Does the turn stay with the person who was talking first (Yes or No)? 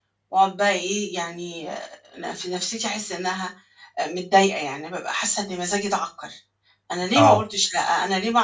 Yes